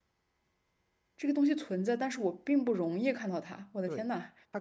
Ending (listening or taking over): taking over